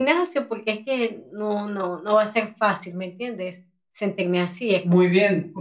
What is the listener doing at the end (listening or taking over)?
taking over